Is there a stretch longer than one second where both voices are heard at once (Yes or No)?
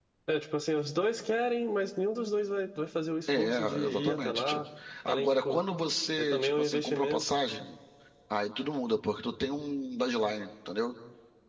Yes